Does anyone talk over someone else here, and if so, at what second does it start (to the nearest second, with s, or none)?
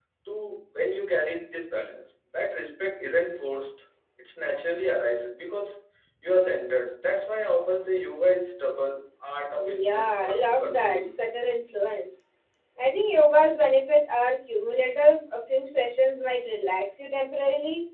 10 s